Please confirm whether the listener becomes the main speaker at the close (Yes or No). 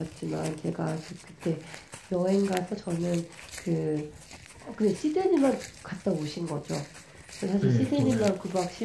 No